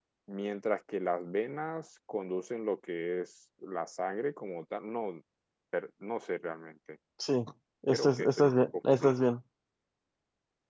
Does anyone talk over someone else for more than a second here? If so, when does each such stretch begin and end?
7.9-9.3

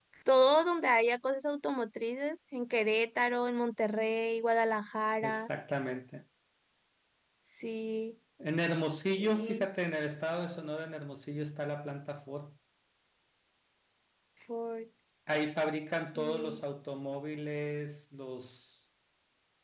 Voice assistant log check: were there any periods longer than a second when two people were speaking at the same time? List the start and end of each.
none

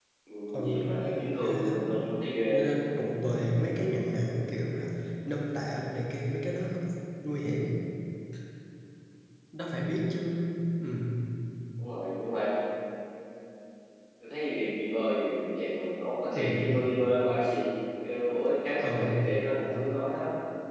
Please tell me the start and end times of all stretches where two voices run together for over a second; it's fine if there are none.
0.5-1.9

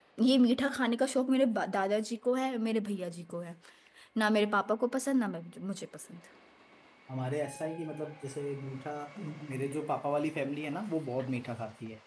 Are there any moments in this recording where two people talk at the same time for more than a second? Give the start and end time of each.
none

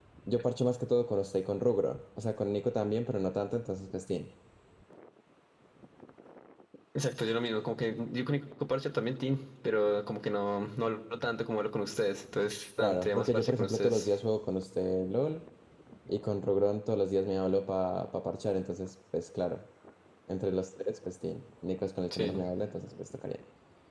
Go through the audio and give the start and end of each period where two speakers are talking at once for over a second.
12.8-14.1

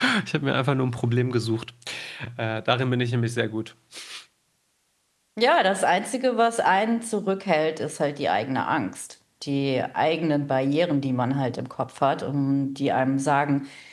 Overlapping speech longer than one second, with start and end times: none

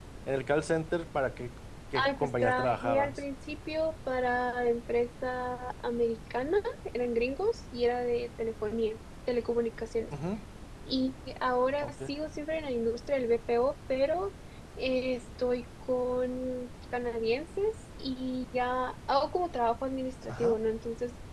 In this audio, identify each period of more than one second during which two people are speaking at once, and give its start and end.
1.9-3.2

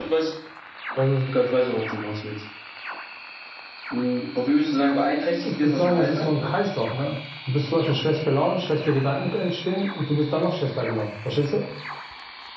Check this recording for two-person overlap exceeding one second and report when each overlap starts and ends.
4.7-6.3

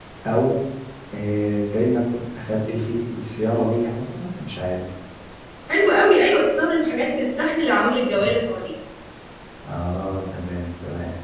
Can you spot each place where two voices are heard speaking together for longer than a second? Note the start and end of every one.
none

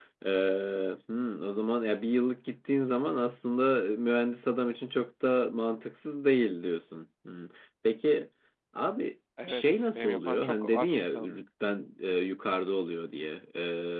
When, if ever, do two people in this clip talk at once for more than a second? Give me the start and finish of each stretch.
9.5-11.4

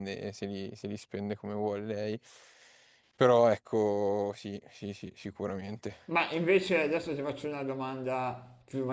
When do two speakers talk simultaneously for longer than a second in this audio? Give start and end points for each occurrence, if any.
none

